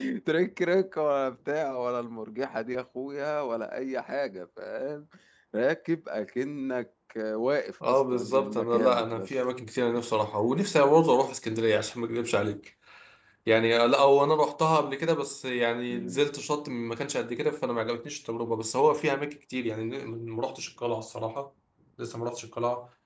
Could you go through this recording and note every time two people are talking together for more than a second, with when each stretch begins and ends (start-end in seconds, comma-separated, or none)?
7.8-9.3